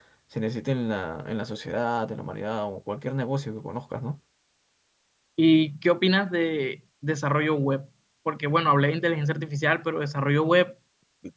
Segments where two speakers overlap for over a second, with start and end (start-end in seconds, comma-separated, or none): none